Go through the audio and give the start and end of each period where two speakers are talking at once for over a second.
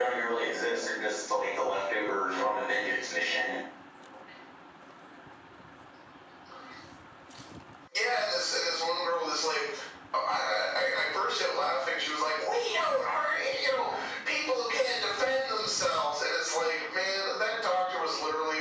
none

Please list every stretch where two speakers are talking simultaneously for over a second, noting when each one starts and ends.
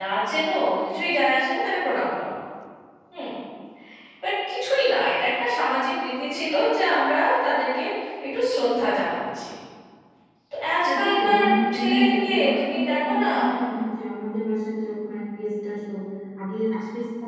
10.8-13.3

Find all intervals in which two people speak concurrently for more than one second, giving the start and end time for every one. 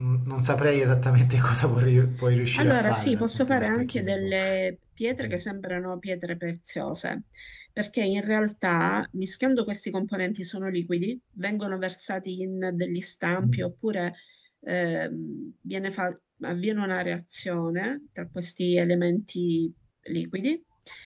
2.5-4.3

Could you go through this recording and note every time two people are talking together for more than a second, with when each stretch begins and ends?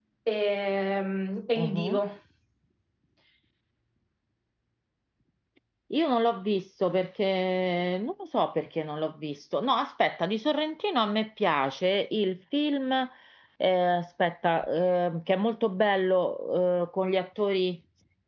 none

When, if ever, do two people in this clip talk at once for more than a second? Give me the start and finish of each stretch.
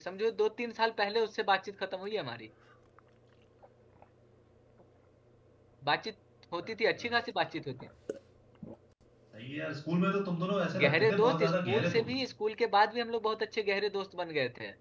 10.8-12.1

